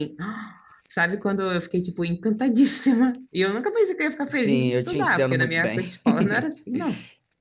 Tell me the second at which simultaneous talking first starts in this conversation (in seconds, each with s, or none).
4.3 s